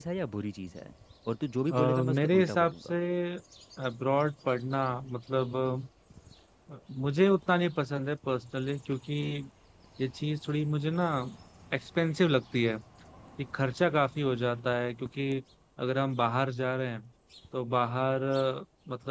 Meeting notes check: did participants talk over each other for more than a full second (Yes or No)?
Yes